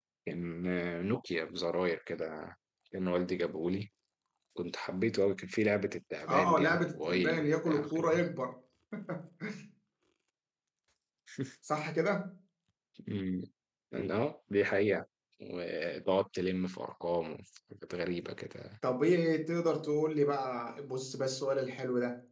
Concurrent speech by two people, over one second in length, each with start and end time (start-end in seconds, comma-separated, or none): 6.3-8.0